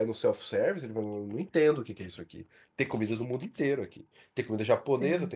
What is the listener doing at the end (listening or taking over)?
listening